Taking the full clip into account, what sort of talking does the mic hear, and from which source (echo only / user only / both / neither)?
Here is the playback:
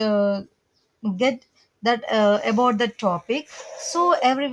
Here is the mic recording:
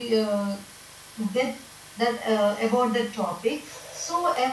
echo only